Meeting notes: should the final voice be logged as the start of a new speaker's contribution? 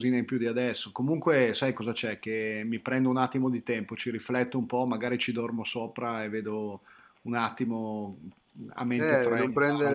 Yes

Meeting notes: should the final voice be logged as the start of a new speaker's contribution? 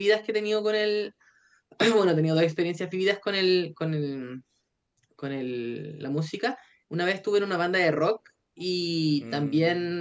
No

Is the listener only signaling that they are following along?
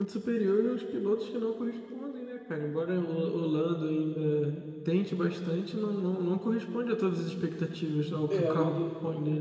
No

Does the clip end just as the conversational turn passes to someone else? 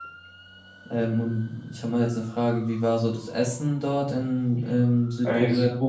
Yes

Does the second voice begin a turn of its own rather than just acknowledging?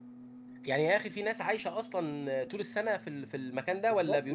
Yes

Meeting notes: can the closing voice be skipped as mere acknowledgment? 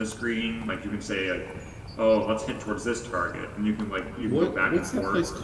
No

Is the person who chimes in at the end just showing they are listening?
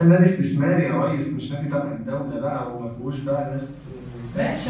No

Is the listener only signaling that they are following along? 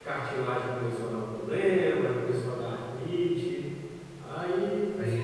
No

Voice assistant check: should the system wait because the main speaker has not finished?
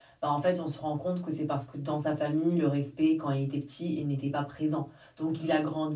Yes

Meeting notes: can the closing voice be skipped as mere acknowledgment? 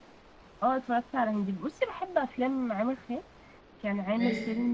Yes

